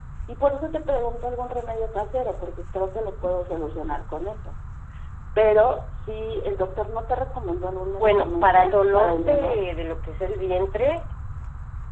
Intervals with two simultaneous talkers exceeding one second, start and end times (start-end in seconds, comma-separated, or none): 8.0-9.7